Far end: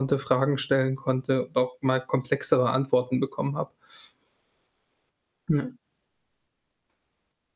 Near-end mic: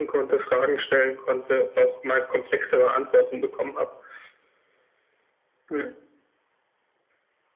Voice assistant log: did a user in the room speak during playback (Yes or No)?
No